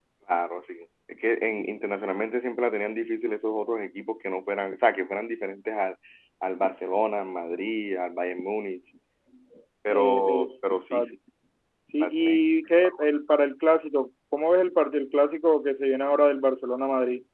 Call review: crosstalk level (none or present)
present